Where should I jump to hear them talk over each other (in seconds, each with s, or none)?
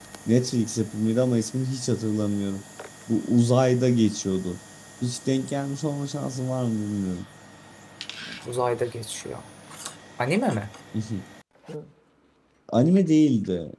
none